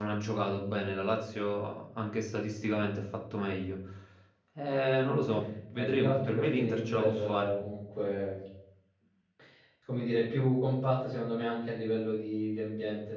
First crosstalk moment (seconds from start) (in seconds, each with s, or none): 5.7 s